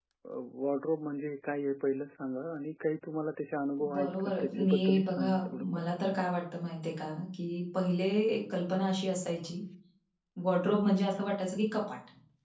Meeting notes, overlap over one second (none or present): present